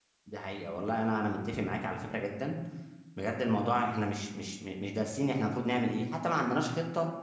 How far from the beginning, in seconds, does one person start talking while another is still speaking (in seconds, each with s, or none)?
none